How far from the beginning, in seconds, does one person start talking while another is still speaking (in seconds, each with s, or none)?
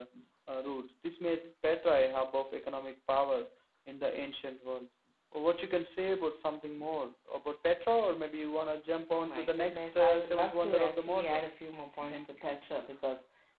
9.1 s